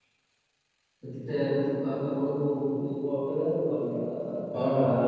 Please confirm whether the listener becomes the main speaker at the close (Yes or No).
Yes